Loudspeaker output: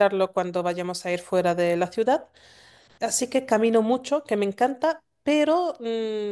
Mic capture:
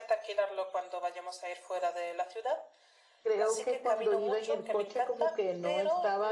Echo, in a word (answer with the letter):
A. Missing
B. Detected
B